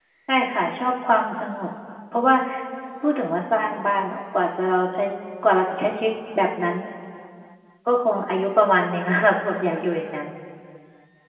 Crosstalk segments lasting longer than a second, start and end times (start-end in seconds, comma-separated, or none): none